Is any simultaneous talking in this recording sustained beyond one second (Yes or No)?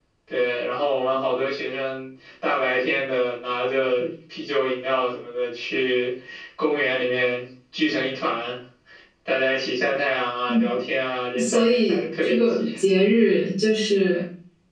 Yes